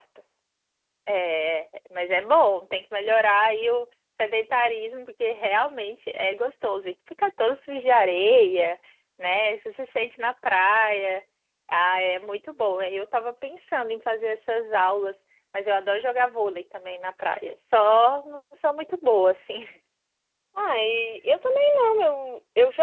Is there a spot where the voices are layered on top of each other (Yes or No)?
No